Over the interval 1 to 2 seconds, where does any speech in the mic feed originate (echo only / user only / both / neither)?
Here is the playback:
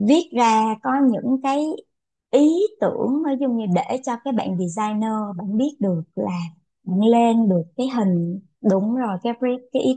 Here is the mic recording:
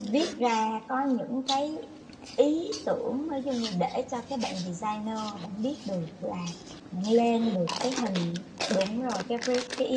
echo only